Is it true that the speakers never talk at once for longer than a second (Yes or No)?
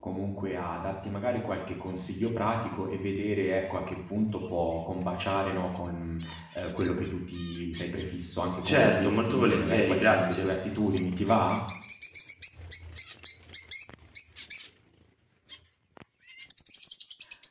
No